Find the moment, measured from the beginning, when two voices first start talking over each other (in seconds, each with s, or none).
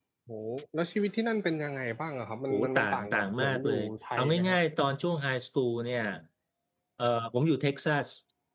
2.5 s